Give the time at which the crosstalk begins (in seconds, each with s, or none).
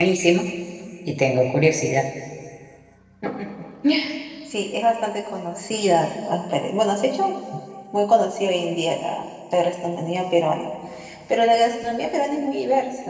none